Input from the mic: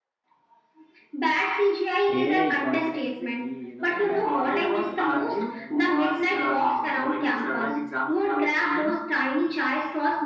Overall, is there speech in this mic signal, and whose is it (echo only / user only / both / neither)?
both